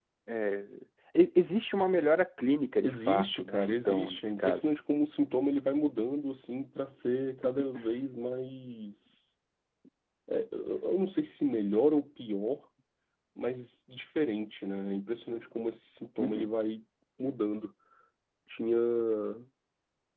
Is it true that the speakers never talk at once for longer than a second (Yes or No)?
No